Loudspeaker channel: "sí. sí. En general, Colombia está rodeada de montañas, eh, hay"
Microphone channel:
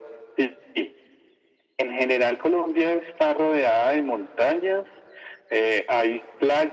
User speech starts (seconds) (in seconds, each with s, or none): none